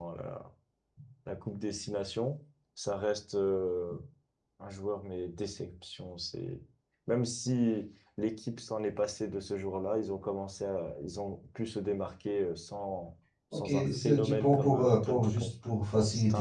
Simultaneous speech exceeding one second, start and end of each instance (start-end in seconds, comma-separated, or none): 13.5-15.5